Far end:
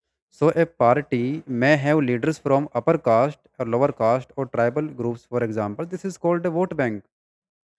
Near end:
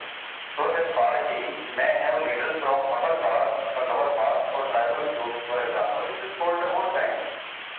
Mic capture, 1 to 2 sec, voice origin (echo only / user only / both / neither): echo only